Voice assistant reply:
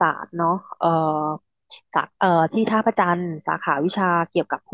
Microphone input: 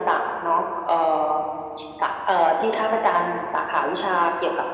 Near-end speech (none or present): none